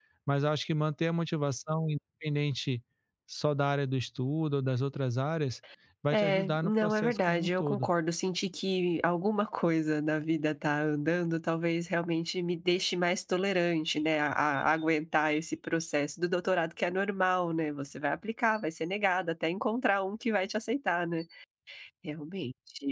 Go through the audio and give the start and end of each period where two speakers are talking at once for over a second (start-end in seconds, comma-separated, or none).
6.1-7.9